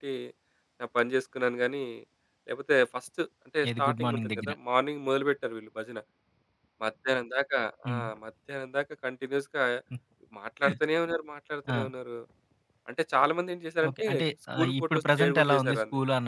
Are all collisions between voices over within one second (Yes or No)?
No